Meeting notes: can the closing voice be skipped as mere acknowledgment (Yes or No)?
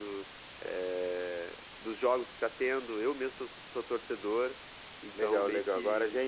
No